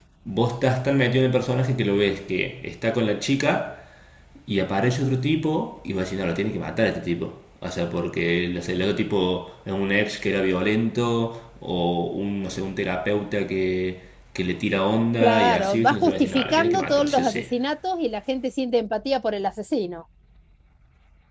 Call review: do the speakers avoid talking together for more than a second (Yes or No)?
No